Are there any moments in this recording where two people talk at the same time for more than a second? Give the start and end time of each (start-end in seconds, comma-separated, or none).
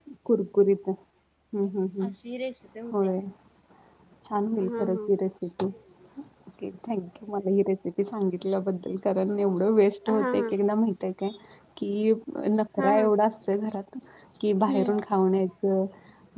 none